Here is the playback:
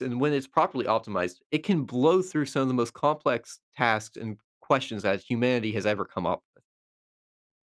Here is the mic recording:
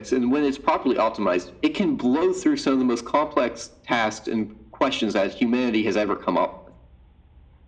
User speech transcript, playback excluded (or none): none